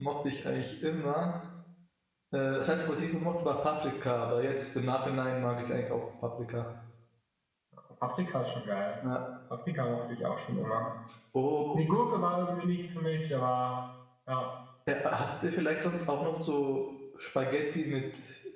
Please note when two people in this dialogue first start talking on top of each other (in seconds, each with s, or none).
none